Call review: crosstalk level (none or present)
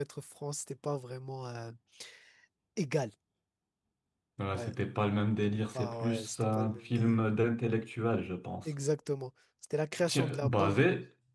present